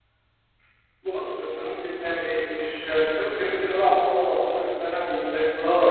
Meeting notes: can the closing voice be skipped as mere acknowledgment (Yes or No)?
No